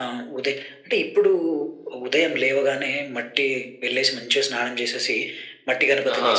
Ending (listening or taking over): listening